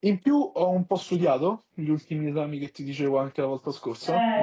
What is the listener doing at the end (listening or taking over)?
taking over